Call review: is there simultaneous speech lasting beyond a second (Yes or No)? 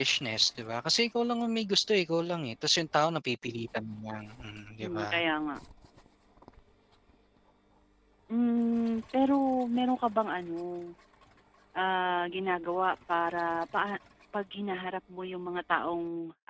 No